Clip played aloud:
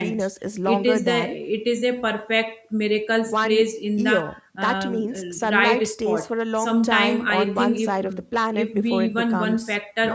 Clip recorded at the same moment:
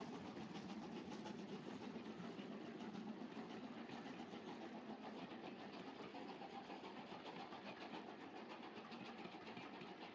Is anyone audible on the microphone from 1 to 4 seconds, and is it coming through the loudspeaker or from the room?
neither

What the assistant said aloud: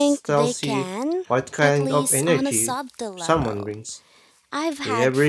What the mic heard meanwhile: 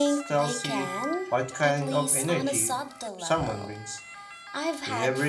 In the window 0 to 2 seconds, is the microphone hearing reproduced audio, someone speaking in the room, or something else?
echo only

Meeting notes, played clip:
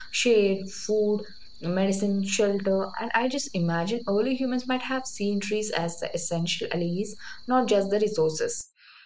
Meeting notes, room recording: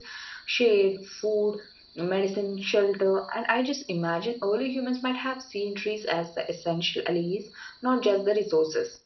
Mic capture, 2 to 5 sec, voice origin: echo only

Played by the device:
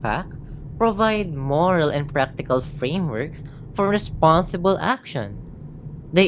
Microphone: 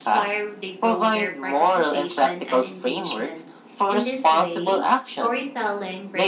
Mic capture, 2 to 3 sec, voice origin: both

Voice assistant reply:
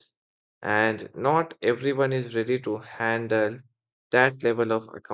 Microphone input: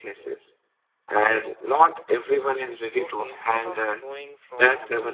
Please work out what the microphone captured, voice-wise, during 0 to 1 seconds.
echo only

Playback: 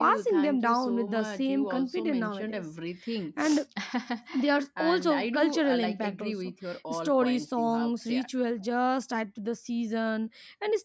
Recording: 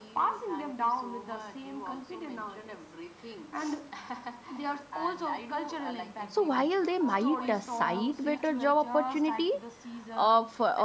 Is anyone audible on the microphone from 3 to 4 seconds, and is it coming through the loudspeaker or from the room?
echo only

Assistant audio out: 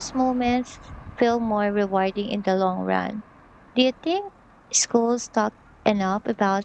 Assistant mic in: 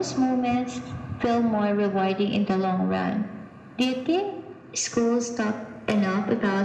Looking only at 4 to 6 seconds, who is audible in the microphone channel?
echo only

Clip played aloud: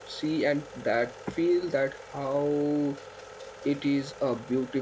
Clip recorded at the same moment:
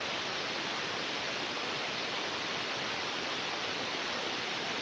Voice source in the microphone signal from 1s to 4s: neither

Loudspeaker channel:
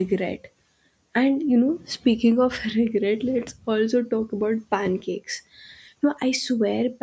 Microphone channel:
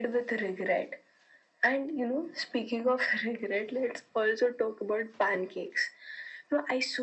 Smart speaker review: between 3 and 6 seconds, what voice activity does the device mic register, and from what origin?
echo only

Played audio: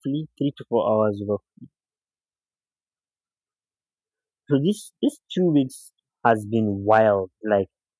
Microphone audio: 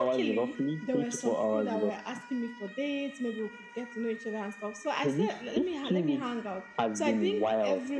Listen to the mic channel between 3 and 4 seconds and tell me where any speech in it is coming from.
user only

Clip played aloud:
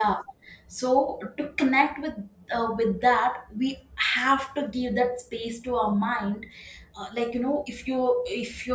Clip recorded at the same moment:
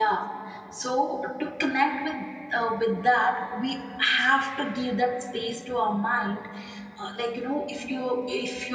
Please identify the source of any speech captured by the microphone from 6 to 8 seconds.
echo only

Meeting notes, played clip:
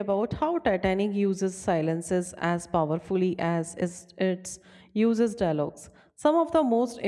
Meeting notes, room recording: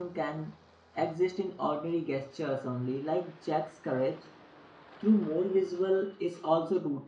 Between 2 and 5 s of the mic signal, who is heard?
user only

